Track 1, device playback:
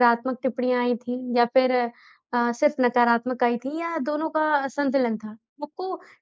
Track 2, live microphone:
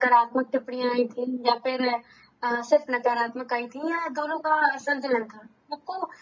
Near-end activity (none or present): none